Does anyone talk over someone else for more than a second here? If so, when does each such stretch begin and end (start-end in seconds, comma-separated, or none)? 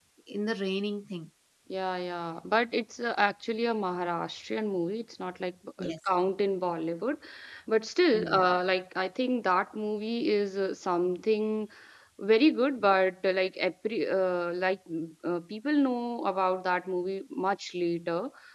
none